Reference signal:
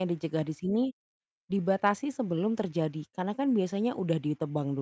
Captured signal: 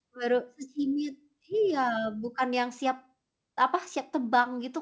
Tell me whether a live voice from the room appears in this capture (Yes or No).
Yes